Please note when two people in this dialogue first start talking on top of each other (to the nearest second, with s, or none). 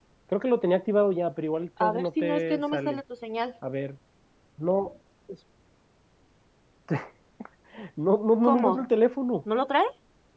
2 s